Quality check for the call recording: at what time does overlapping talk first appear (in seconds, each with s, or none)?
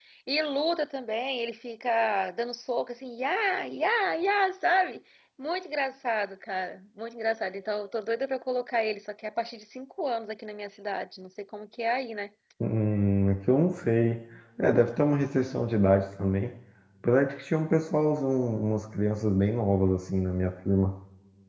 none